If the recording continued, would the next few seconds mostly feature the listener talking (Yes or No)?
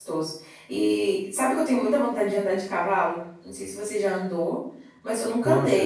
No